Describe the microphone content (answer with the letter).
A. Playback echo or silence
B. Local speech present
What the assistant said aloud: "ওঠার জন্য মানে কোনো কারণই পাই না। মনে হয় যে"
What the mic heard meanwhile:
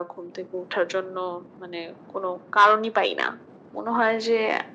A